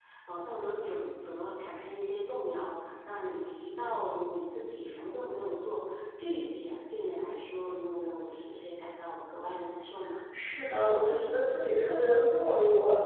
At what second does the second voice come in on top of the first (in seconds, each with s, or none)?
none